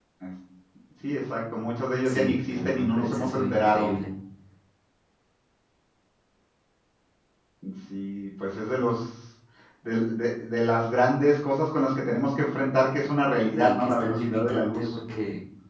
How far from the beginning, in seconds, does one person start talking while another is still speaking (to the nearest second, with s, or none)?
2 s